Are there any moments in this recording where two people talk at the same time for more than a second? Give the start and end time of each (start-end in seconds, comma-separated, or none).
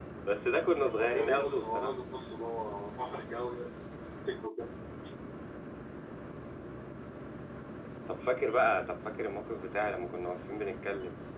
0.7-1.9